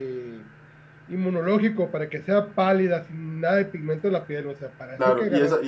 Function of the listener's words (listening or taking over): taking over